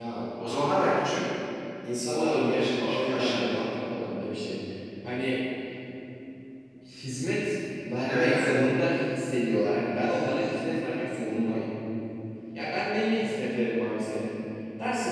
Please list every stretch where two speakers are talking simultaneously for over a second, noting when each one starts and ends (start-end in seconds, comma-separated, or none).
2.1-3.6